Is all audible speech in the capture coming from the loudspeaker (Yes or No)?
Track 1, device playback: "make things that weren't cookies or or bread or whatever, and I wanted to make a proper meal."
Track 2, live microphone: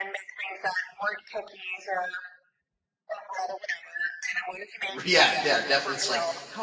No